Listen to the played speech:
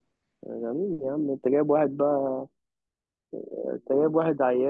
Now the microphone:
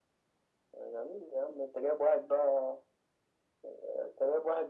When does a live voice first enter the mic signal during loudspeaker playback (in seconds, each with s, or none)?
none